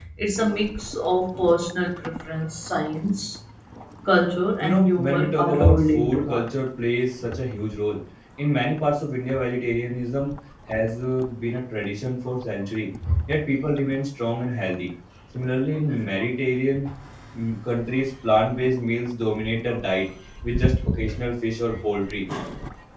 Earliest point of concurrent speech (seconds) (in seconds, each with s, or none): 4.6 s